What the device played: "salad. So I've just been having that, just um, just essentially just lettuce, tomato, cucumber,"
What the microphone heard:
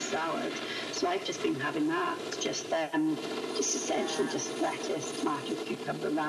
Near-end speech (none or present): present